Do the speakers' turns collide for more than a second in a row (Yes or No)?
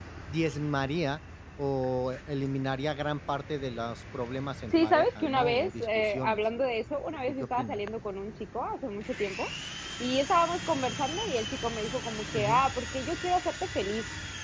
Yes